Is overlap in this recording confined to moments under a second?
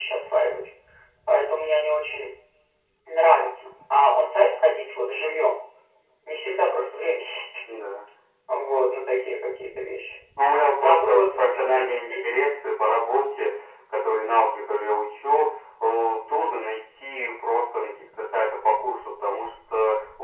No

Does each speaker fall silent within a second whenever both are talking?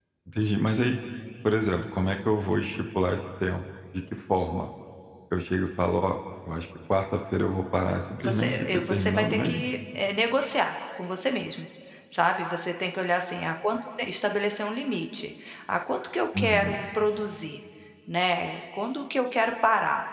No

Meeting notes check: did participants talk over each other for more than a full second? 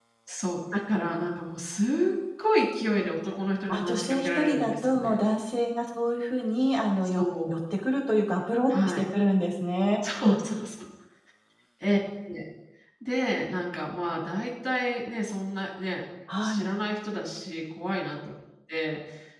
Yes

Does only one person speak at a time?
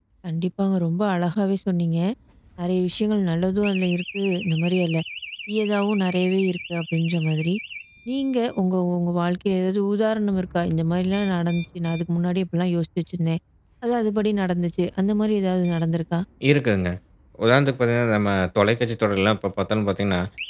Yes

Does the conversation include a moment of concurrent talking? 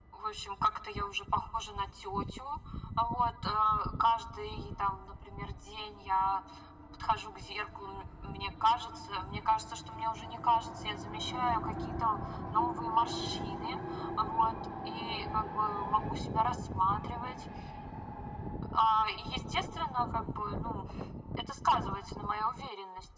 No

